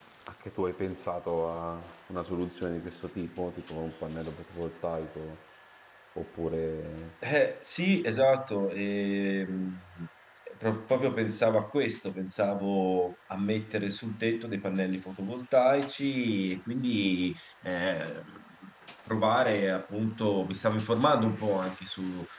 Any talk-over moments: No

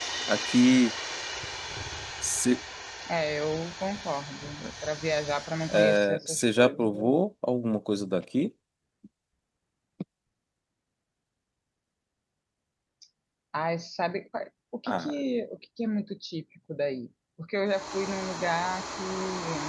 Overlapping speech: Yes, from 5.7 s

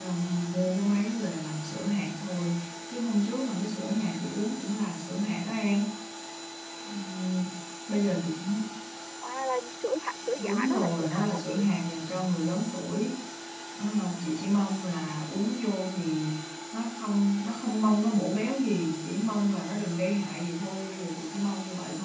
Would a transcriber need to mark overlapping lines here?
Yes, from 10.4 s

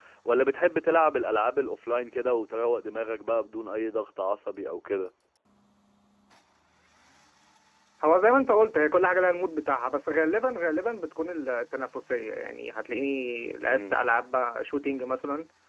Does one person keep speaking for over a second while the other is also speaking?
No

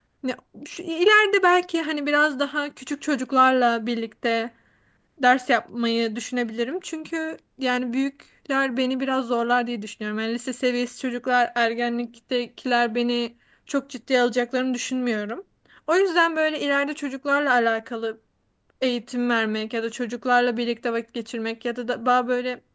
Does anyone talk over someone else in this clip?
No

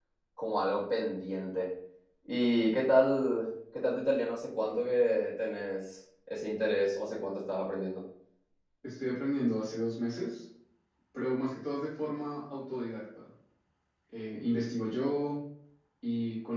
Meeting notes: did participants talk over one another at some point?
No

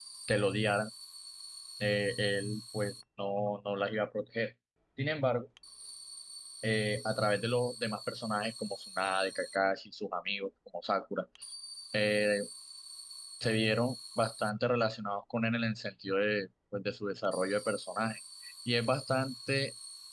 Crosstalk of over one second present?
No

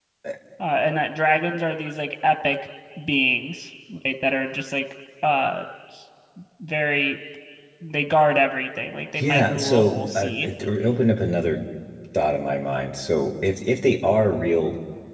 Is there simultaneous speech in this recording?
Yes, from 9.2 s

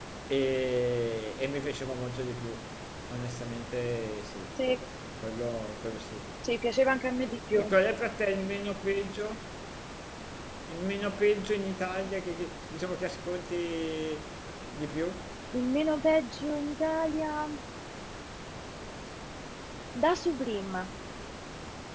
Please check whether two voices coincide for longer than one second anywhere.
No

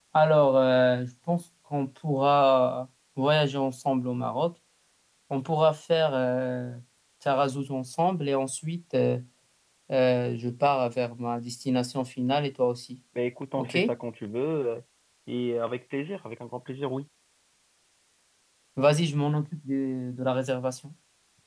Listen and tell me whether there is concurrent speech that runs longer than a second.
No

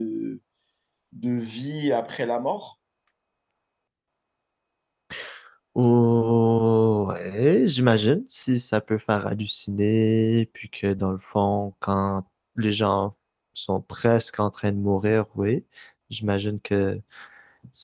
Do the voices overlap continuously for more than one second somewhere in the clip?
No

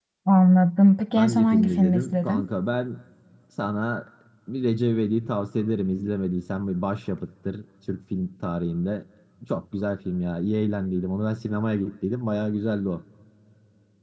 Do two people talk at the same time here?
Yes, from 1.2 s

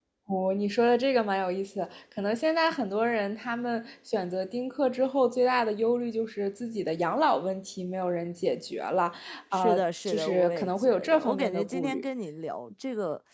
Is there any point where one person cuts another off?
Yes, from 9.5 s

